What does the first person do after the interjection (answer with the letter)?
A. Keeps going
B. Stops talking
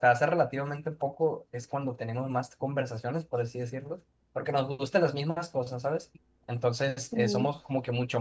A